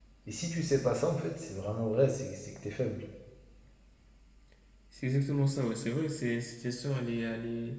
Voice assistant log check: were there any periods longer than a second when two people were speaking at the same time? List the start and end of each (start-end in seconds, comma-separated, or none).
none